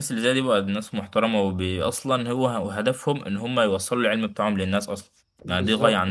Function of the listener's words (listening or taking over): taking over